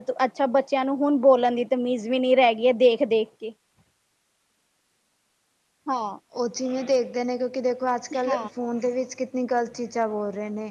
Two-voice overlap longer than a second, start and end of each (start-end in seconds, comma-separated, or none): none